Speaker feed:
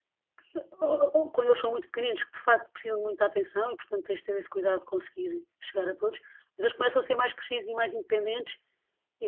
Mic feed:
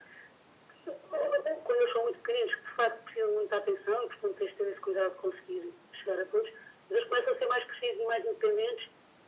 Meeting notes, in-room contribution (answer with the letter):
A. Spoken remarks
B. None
B